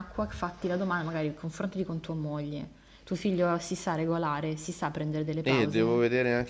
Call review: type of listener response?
taking over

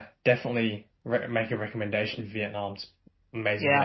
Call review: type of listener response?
taking over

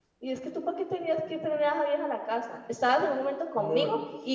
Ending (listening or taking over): listening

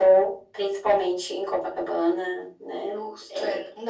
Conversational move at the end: taking over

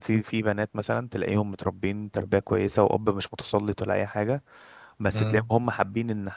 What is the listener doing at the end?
listening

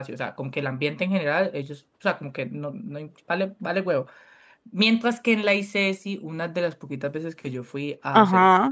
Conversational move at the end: listening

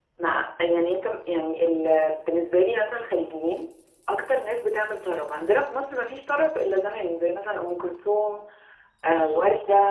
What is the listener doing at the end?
listening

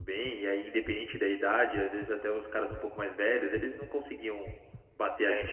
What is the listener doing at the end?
taking over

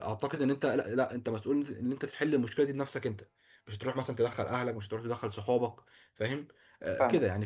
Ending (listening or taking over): listening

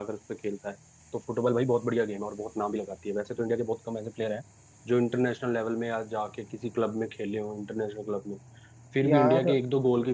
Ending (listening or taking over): listening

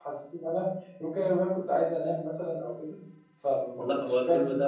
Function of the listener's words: taking over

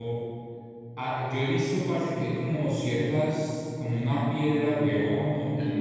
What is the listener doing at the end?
listening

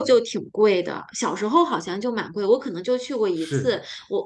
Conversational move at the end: listening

